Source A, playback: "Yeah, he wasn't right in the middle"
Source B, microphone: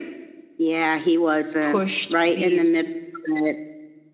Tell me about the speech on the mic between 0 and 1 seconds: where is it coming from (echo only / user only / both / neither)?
echo only